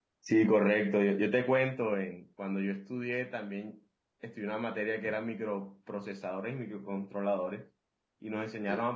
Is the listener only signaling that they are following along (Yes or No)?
Yes